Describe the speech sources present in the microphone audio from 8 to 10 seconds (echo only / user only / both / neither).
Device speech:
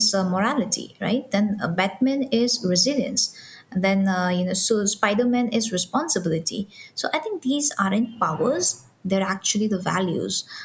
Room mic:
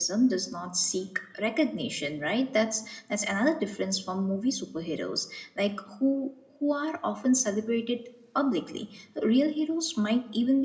user only